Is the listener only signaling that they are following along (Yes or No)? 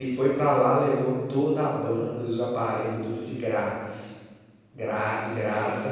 Yes